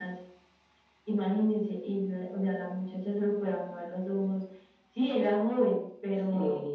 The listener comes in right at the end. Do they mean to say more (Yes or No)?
No